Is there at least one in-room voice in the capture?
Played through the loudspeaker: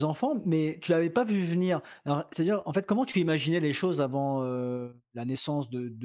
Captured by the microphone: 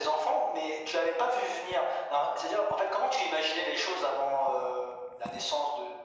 No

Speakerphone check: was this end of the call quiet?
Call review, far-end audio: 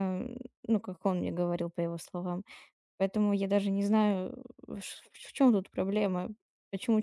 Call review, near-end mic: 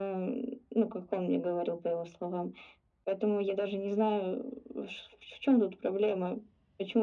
Yes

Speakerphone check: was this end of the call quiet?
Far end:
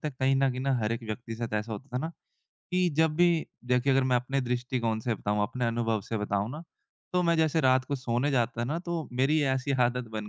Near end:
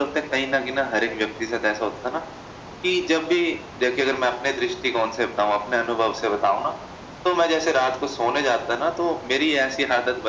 Yes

